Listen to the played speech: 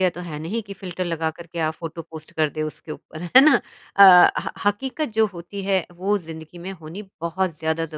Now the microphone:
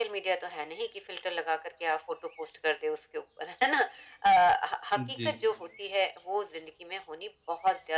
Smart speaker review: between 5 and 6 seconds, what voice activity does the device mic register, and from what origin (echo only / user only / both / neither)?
both